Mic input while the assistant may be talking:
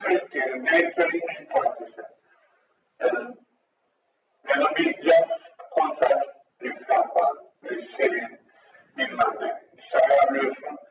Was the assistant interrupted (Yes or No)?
No